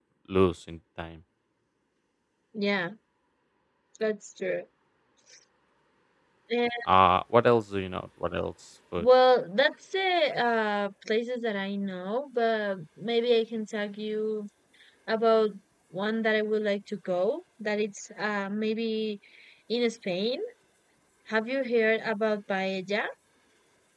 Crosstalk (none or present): none